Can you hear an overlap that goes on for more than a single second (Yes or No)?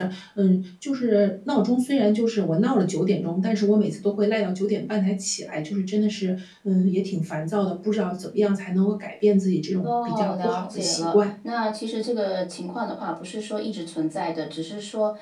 Yes